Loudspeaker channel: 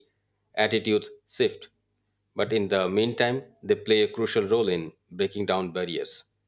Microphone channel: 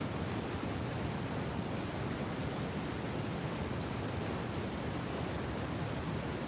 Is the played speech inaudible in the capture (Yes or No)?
Yes